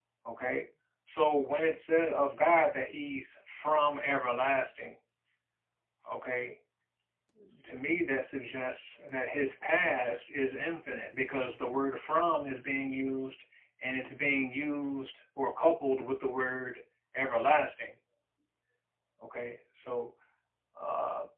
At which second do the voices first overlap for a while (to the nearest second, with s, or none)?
none